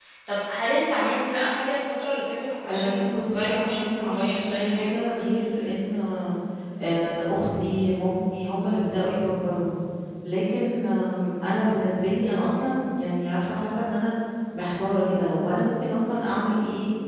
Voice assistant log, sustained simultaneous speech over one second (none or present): present